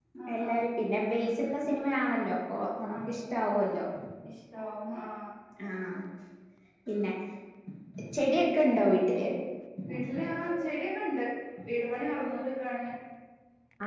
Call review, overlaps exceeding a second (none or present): none